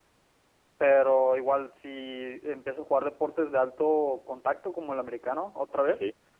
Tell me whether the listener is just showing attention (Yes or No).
Yes